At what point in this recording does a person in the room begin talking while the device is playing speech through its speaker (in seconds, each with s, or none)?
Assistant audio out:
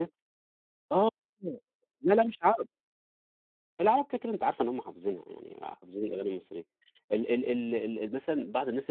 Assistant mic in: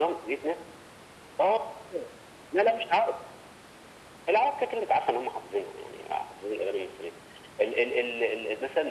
none